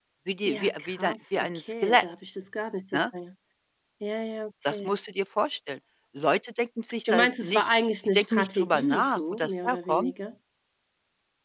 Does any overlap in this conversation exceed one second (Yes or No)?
Yes